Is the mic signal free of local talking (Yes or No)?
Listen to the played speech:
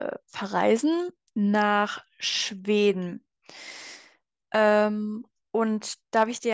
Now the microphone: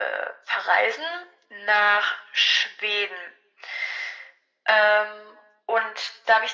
Yes